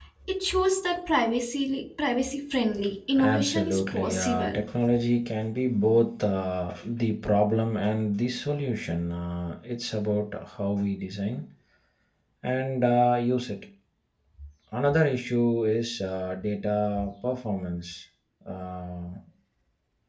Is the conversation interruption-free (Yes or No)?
No